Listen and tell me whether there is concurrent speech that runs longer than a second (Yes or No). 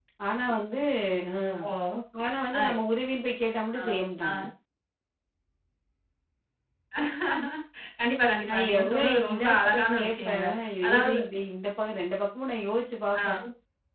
Yes